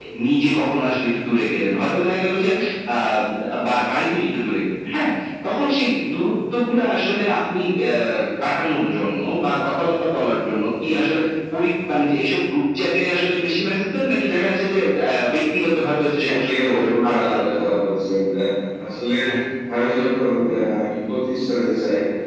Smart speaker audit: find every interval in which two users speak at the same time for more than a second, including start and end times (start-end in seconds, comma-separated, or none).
16.2-17.6